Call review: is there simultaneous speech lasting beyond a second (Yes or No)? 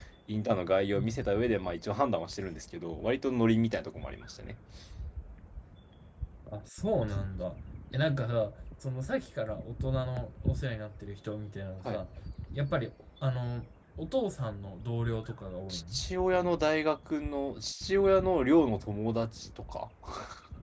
No